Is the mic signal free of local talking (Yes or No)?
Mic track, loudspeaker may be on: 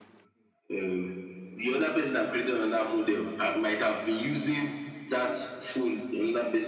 Yes